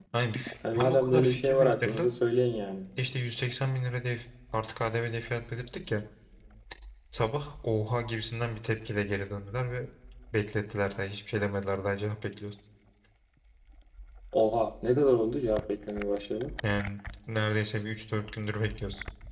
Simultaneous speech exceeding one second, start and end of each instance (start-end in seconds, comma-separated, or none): 0.7-2.1